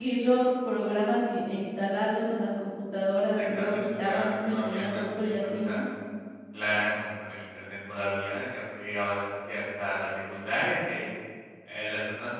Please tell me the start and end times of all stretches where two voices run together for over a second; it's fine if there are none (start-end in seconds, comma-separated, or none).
3.4-5.8